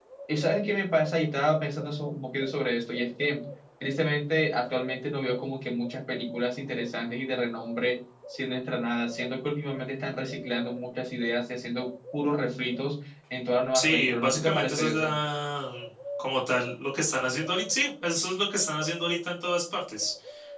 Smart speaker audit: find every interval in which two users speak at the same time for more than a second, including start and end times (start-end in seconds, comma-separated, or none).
13.7-15.1